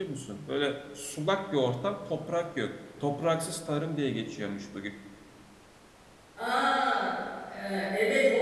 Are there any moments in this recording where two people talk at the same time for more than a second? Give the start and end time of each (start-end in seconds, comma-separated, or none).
none